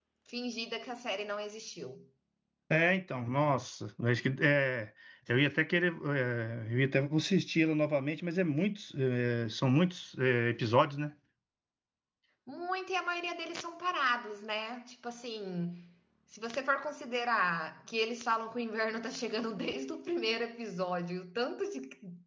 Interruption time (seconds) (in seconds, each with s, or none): none